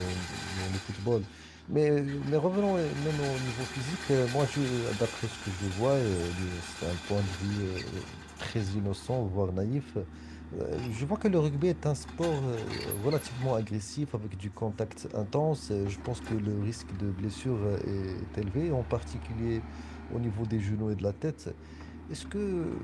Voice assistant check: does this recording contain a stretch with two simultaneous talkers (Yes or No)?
No